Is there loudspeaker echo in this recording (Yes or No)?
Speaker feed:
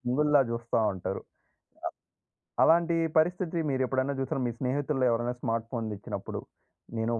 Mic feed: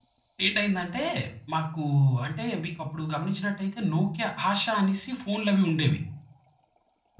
No